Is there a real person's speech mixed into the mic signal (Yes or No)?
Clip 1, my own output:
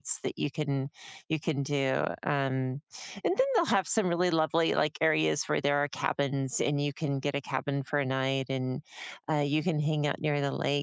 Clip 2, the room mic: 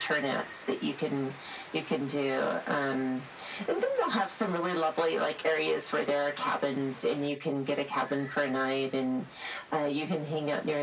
No